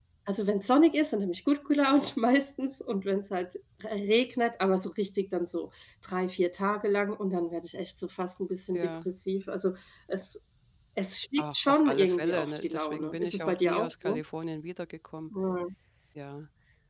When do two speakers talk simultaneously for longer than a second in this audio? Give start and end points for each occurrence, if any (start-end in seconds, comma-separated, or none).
11.4-14.2